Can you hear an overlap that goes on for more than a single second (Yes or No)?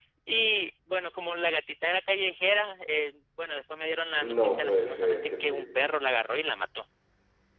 Yes